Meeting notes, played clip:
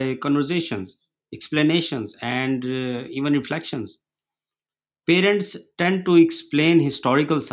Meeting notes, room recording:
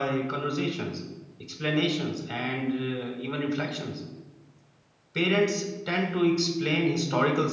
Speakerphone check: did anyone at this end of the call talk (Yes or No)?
No